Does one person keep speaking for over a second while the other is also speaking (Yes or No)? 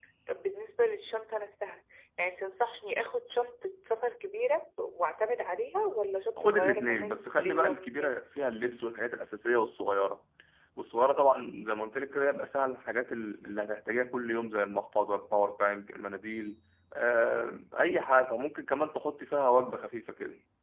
Yes